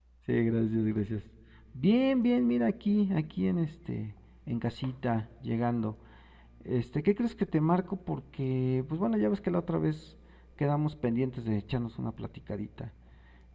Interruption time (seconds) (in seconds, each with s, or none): none